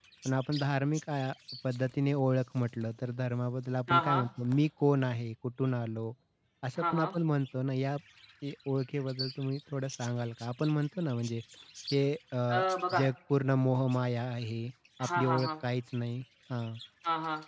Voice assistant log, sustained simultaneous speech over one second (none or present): none